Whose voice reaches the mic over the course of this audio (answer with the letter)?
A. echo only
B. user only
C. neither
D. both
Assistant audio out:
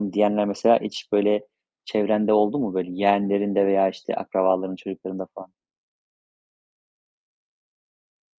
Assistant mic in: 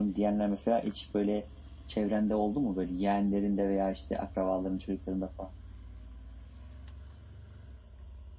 A